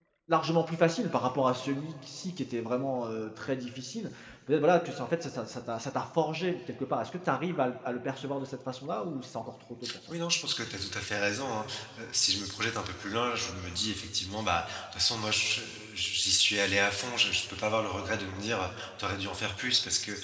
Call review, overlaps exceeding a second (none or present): none